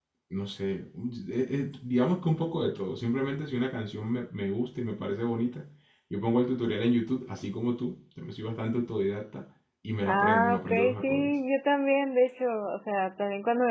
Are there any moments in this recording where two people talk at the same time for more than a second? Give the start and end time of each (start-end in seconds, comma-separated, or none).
10.1-11.3